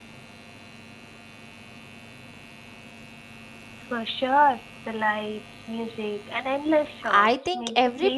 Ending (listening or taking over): taking over